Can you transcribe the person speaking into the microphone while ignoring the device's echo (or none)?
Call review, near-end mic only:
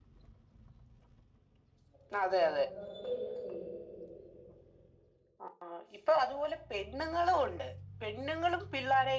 പിന്നെ പേടിയില്ലാത്ത കൊണ്ടല്ലേ ഇങ്ങനെ ചെ ചെയ്തു.